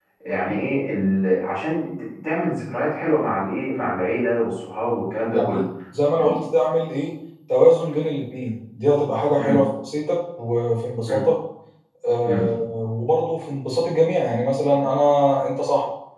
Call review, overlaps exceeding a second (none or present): none